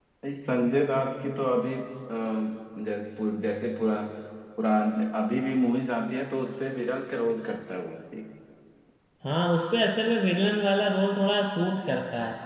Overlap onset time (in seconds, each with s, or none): none